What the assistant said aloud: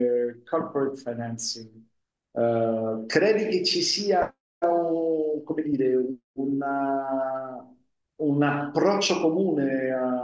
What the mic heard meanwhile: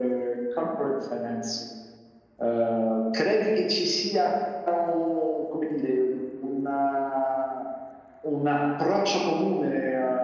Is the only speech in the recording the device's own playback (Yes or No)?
Yes